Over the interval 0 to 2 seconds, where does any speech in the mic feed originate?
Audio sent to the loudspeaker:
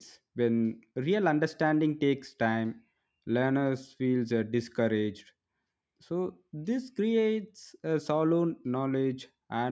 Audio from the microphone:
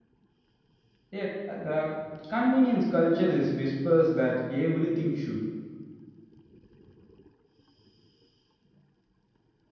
user only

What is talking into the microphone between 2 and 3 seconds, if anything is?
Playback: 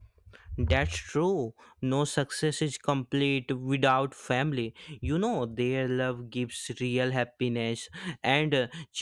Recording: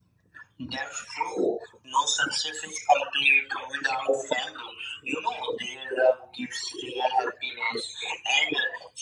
echo only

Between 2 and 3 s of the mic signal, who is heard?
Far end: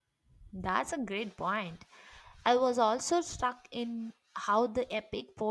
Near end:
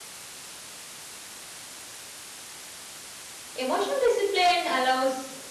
neither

